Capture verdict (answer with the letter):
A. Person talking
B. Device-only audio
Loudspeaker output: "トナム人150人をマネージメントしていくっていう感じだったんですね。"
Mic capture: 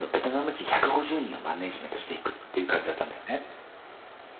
B